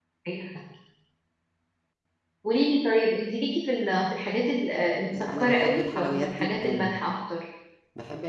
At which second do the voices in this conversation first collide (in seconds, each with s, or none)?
5.1 s